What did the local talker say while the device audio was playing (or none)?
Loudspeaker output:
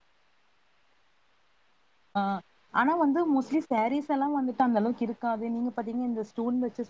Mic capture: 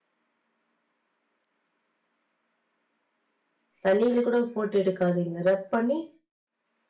தண்ணில கூட போட்டு எடுக்காதீங்க ரப் பண்ணி